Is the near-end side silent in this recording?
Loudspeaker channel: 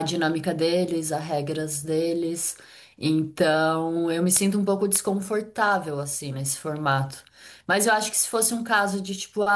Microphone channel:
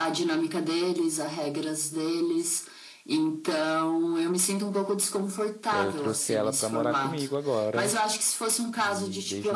No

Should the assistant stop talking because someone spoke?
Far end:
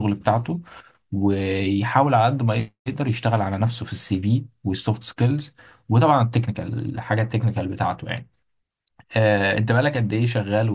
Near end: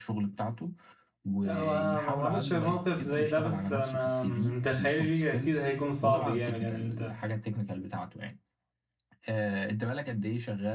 Yes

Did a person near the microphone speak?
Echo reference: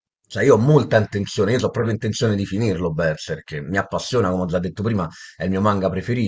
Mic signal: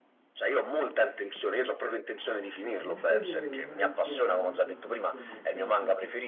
Yes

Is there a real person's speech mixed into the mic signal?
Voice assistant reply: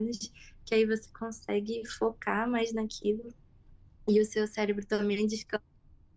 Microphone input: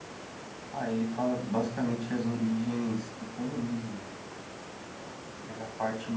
Yes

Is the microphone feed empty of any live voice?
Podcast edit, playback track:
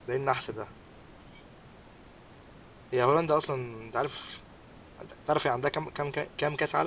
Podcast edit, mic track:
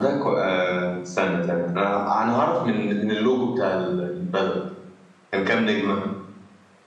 No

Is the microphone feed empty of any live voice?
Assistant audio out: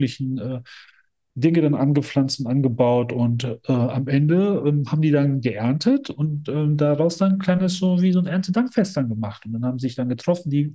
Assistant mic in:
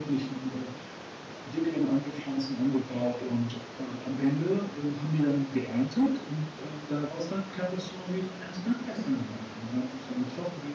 Yes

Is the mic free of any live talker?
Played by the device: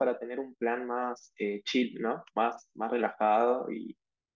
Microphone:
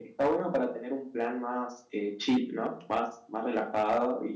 Yes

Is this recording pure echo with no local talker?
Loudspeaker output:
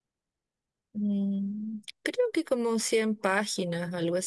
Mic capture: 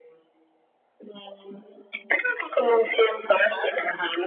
Yes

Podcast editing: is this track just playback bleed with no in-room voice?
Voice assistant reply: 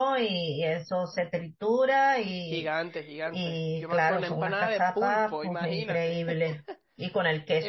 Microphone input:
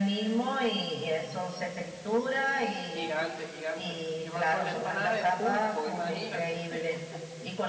Yes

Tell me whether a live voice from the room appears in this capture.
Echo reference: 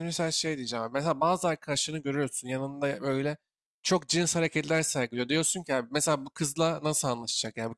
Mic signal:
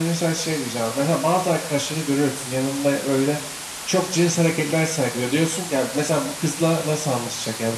No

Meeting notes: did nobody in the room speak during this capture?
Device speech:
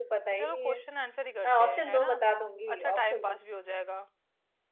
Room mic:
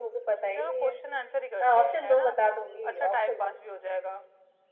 Yes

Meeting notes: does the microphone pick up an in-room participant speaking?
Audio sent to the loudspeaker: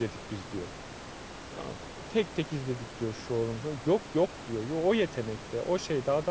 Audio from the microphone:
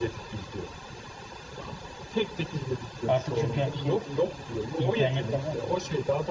Yes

